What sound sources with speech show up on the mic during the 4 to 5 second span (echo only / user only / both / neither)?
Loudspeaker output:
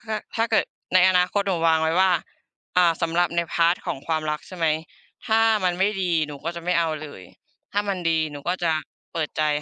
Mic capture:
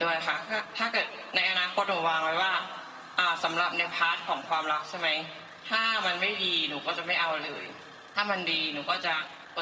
echo only